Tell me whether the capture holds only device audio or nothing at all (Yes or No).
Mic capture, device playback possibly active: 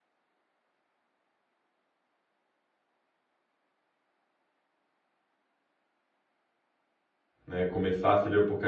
No